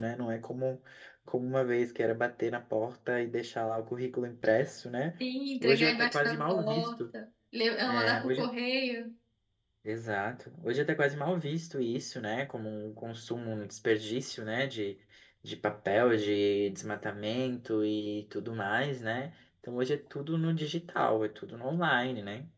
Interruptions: present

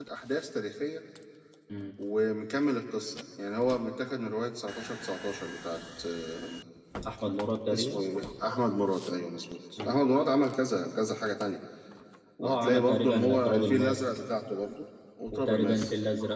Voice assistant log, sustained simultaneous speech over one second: present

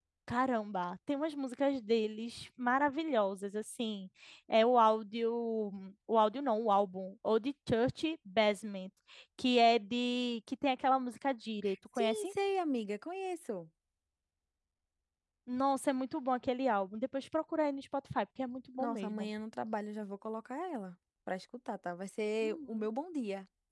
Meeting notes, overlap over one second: none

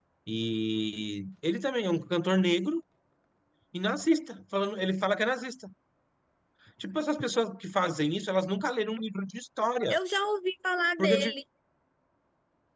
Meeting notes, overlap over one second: none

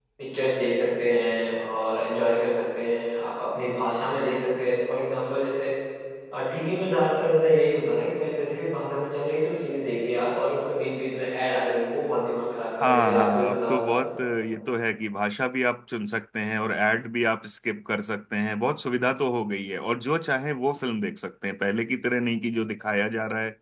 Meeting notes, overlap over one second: present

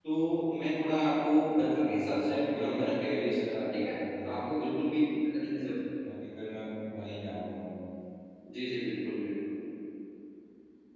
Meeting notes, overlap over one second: present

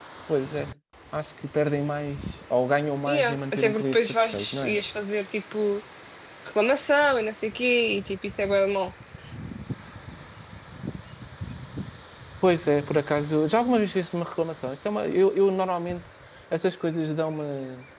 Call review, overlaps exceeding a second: present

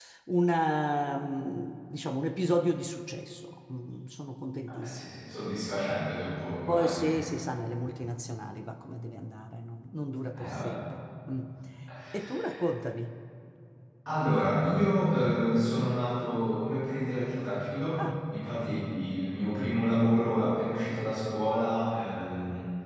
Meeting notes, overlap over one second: none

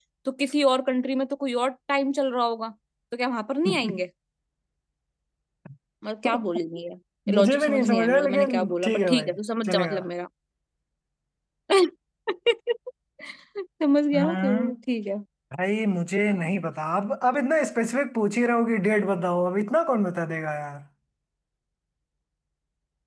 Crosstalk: present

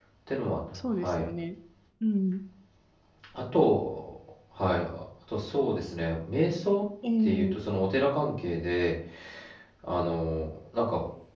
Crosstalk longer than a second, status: none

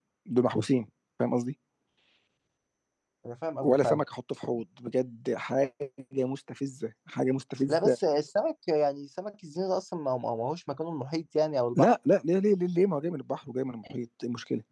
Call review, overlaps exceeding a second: none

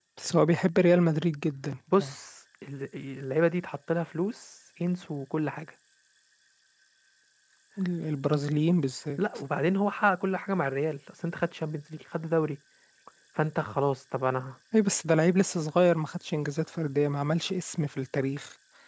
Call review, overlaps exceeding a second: none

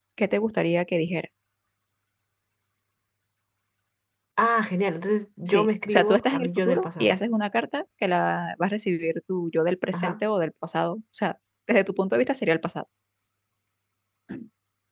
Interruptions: present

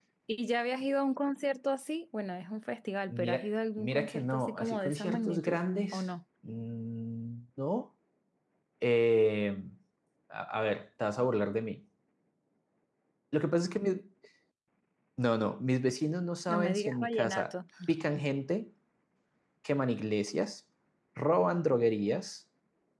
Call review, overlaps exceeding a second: present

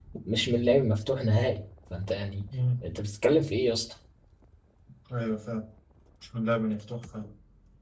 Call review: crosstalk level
none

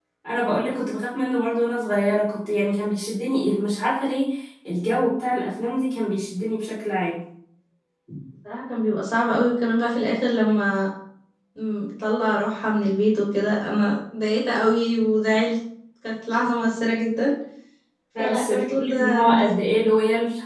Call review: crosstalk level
present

